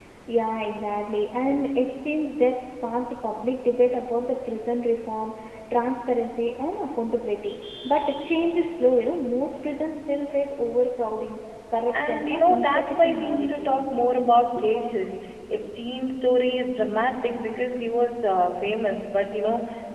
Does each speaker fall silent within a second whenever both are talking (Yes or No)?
No